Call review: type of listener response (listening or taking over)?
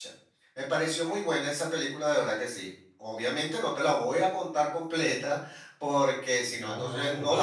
taking over